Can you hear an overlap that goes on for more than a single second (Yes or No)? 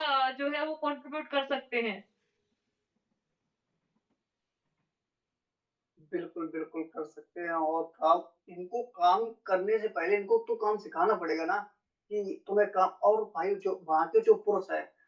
No